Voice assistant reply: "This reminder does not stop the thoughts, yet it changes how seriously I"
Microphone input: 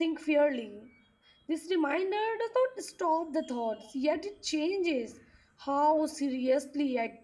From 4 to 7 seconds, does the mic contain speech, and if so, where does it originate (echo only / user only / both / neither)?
echo only